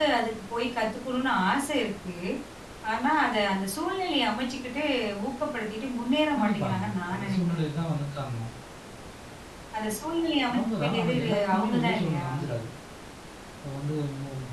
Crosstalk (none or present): present